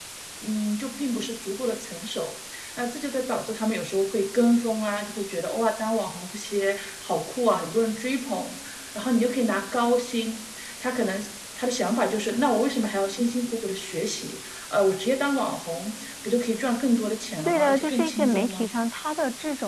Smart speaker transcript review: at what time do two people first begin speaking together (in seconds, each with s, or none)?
17.5 s